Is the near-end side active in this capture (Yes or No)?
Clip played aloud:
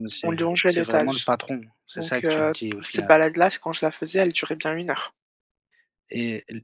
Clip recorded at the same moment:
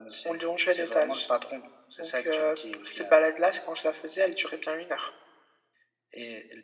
No